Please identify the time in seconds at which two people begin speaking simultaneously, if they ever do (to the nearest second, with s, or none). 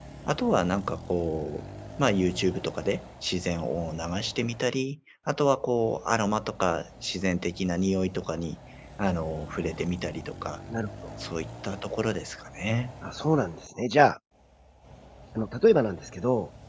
none